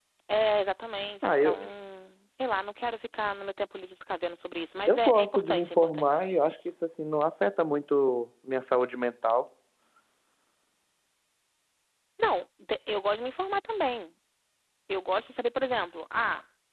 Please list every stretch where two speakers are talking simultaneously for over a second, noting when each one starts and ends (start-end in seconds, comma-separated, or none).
4.9-6.1